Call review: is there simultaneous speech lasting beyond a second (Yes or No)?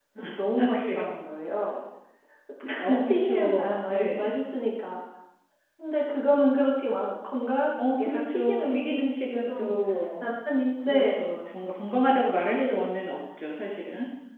Yes